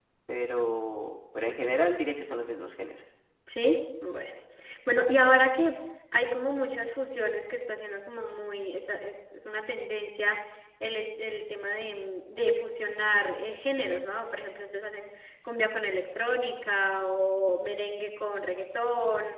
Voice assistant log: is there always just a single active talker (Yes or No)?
Yes